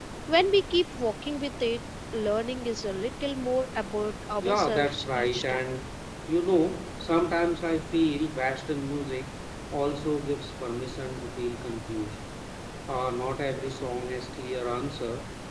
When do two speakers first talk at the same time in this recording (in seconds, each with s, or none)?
4.4 s